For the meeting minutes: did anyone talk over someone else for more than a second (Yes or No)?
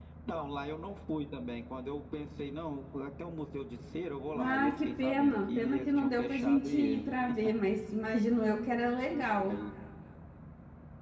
Yes